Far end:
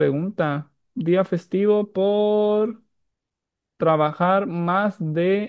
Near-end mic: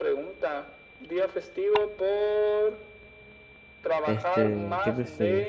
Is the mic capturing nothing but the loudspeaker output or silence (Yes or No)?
No